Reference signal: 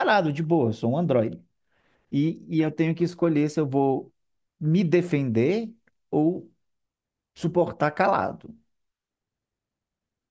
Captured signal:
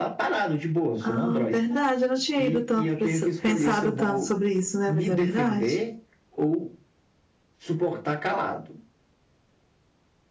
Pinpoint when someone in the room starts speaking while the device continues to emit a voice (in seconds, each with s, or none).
1.0 s